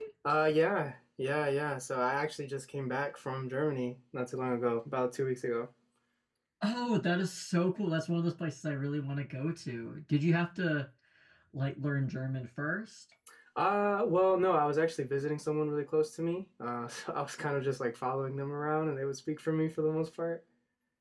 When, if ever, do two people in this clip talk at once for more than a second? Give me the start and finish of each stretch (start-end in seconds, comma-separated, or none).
none